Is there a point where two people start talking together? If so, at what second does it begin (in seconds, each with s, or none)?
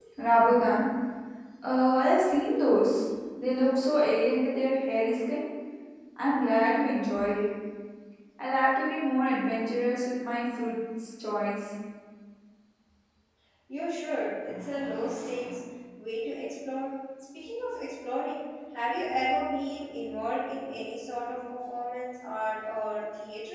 none